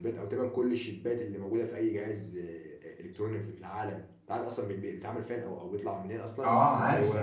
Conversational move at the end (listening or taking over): taking over